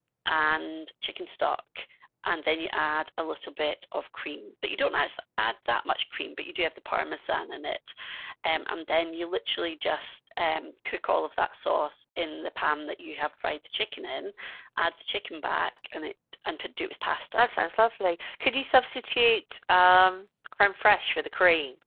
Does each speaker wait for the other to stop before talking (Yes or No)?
Yes